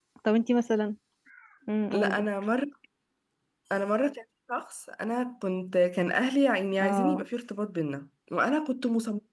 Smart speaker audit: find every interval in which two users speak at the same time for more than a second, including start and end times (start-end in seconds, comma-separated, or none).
none